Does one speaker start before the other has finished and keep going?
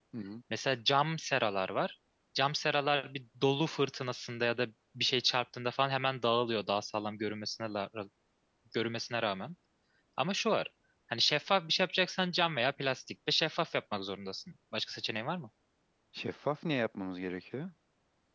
No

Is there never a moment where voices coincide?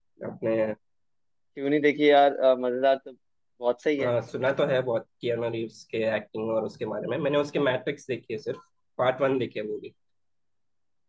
Yes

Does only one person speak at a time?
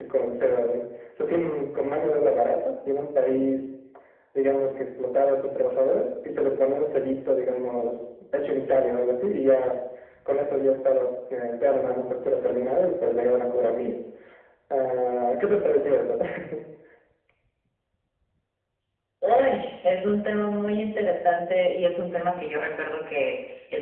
Yes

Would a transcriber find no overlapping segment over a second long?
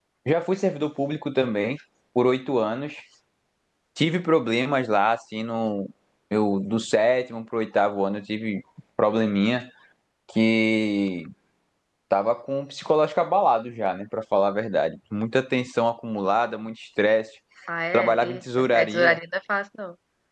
No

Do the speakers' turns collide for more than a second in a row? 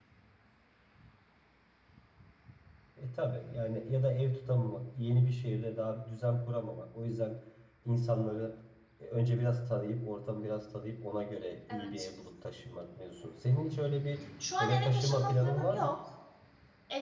Yes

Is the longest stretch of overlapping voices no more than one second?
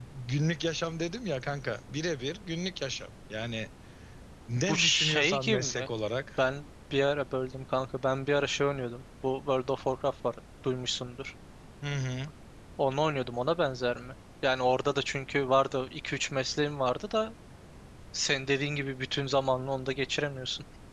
No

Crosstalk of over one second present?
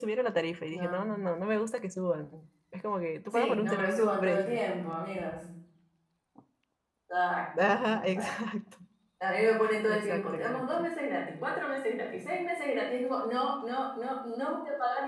Yes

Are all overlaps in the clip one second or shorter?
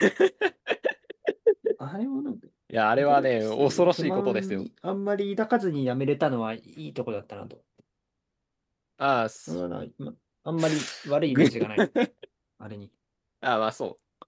No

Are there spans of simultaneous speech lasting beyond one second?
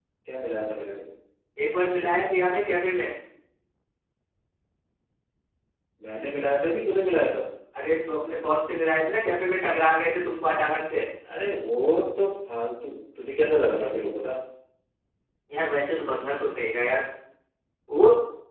No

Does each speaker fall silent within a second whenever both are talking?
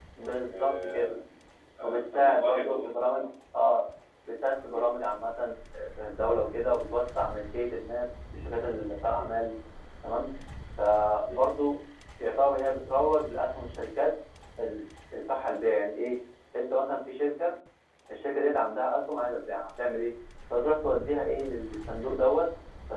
No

